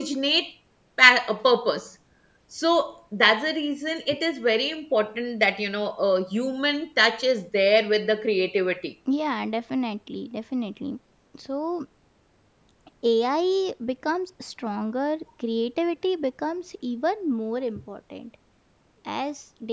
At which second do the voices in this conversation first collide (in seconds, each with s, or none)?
none